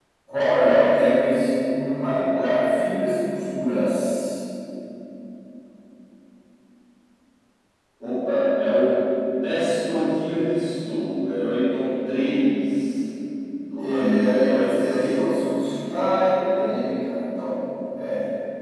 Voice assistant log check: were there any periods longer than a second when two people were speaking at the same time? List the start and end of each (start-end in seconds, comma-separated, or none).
13.8-15.2